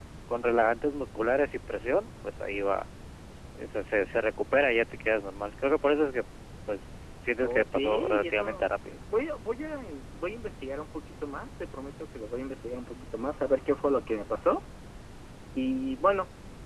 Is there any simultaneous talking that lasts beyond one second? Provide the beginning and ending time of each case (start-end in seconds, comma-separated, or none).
7.4-9.0